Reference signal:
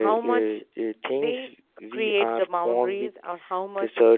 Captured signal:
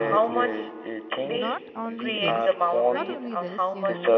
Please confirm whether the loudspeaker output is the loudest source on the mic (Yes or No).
Yes